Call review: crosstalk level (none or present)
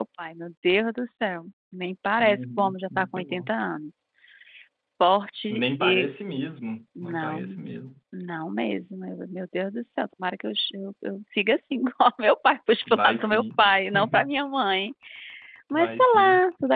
present